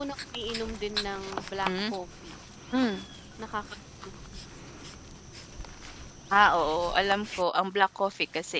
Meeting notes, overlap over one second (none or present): none